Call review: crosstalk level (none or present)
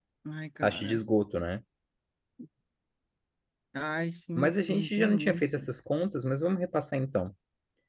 present